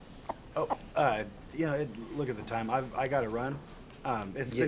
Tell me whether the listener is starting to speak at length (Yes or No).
Yes